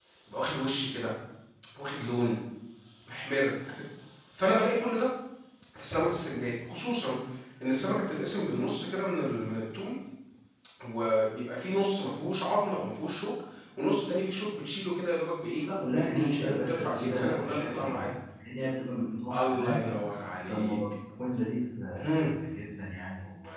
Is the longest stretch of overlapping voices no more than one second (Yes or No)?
No